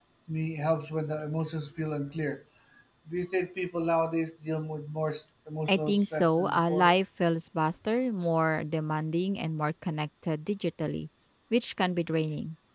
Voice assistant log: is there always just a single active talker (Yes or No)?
No